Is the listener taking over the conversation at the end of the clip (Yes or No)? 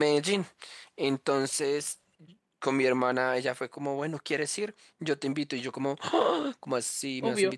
No